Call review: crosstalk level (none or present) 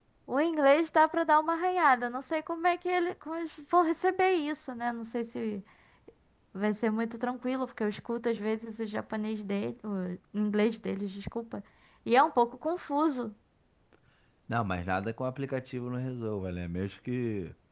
none